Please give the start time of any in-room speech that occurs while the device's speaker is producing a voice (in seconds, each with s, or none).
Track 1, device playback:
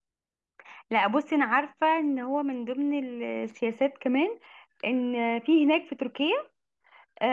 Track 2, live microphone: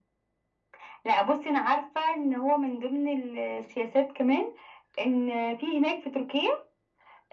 none